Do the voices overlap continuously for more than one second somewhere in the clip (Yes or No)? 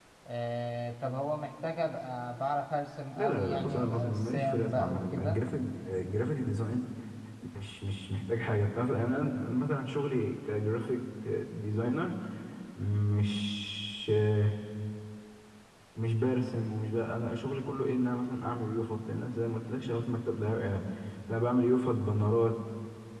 Yes